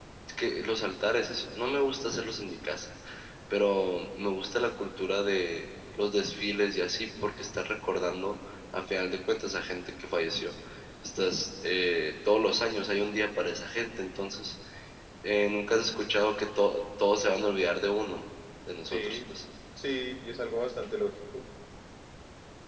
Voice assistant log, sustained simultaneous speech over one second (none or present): none